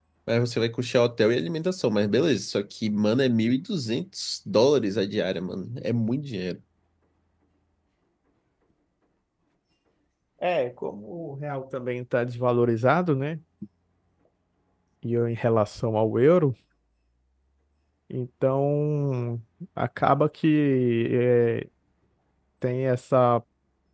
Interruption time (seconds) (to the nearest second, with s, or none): none